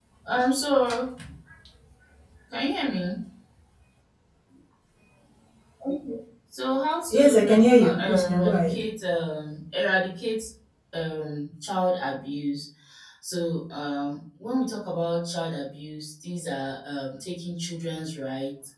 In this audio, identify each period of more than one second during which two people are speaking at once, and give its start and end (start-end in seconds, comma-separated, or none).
7.1-8.8